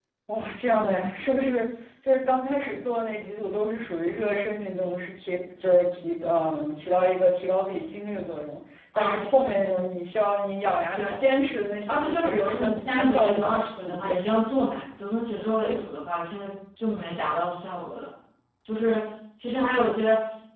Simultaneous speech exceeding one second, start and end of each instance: 11.9-14.2

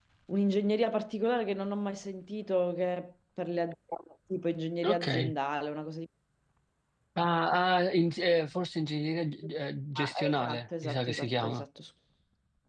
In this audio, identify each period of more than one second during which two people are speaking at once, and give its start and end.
9.9-11.7

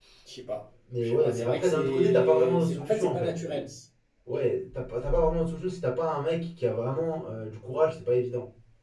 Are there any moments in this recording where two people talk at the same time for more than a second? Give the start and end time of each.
1.0-3.3

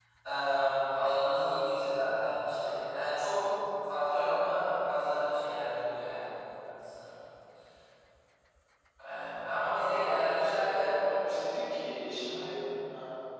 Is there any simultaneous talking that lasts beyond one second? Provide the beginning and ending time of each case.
9.8-11.4

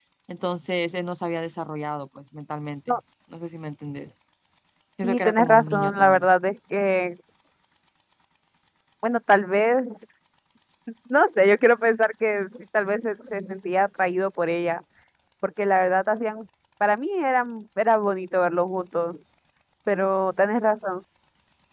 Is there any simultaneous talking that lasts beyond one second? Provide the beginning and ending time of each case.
5.0-6.3

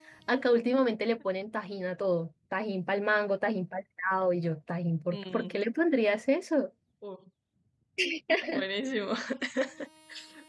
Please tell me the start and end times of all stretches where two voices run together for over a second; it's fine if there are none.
none

